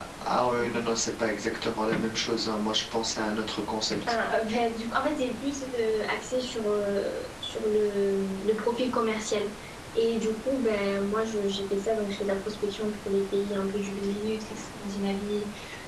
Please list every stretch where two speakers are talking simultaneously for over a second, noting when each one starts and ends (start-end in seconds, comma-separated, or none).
none